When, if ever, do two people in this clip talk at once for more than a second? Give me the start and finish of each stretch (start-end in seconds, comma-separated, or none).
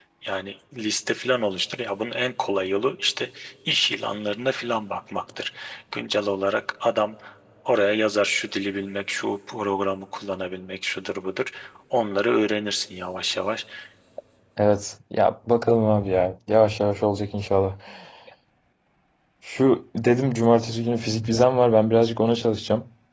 none